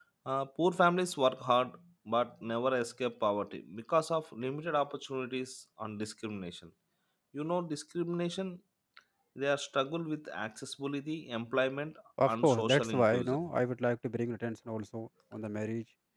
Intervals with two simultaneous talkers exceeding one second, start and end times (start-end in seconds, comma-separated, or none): 12.2-13.5